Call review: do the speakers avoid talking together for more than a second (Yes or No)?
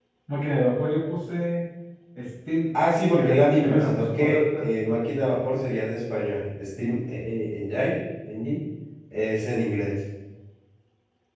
No